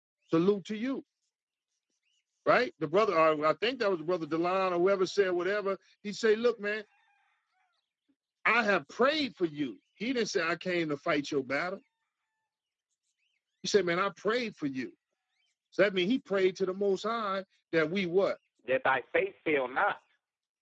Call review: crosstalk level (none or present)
none